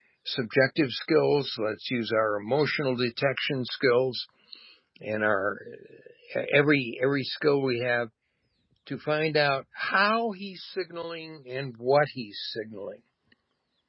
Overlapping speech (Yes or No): No